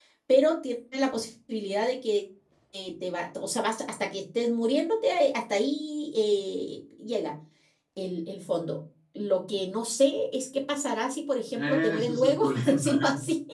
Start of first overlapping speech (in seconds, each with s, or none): 11.5 s